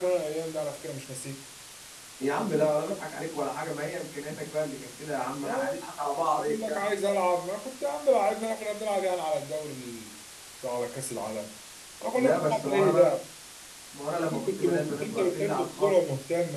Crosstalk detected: Yes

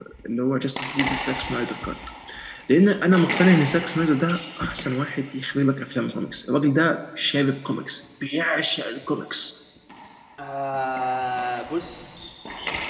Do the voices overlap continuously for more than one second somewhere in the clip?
No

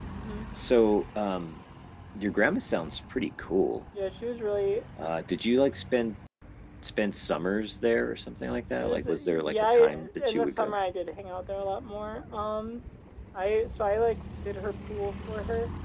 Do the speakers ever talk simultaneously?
Yes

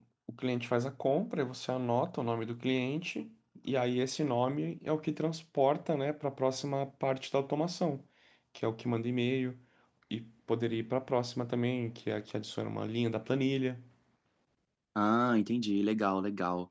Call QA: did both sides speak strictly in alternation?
Yes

